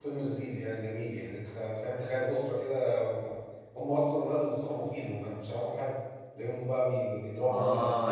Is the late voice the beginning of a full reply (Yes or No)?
Yes